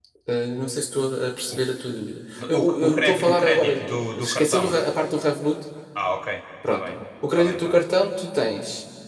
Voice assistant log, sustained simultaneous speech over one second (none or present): present